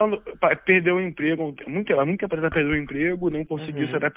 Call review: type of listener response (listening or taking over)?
listening